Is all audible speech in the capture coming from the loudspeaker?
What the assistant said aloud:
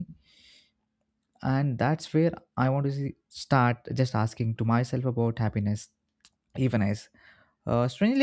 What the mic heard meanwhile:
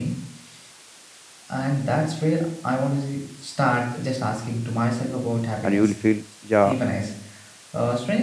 No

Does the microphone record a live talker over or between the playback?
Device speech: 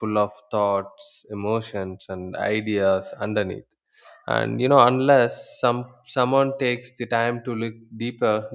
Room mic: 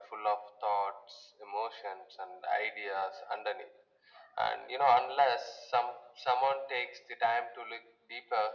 No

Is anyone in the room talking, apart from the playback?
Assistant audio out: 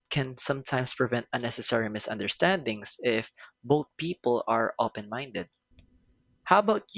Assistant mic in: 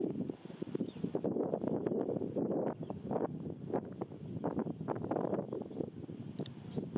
No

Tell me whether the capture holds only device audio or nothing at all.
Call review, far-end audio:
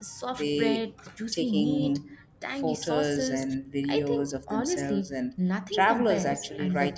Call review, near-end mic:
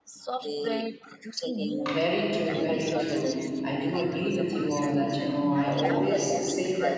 No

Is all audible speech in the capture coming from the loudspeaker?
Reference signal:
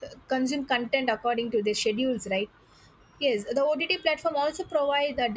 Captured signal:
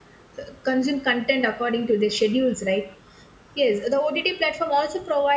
Yes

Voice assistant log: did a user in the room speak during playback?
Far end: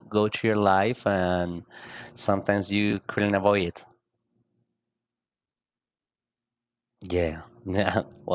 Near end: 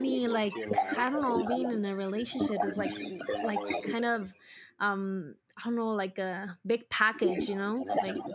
Yes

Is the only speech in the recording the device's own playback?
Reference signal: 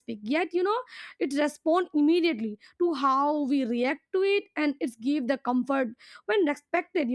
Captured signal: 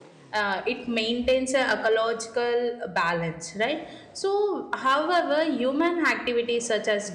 No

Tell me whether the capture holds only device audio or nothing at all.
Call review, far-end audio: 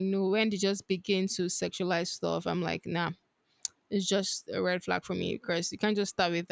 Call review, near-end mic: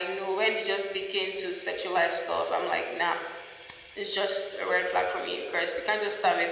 Yes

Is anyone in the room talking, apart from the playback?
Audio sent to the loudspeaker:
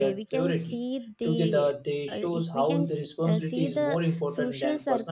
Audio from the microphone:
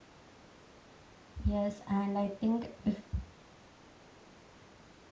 Yes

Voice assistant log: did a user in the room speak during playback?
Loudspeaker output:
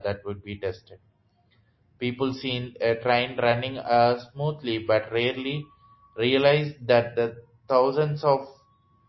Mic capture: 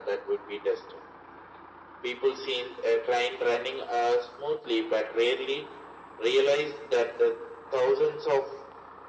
No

